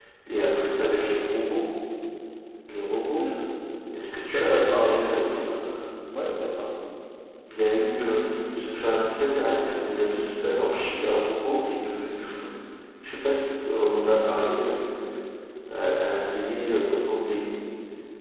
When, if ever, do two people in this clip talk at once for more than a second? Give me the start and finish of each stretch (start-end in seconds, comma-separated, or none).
4.2-5.5